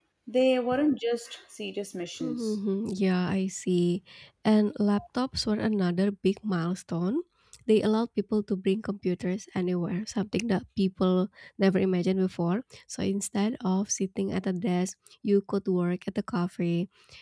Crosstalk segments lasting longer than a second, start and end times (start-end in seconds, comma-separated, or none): none